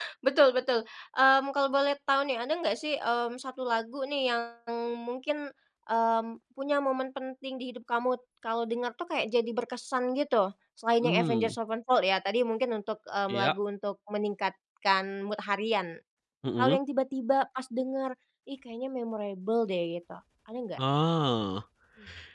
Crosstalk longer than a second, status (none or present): none